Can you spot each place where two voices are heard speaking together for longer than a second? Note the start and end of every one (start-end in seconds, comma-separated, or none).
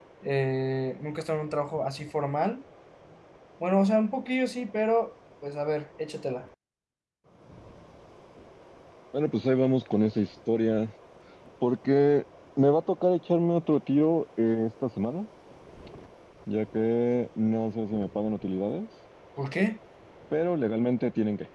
none